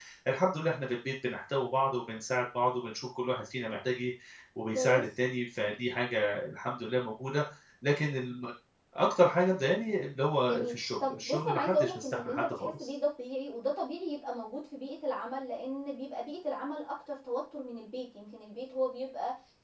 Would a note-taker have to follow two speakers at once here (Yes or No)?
Yes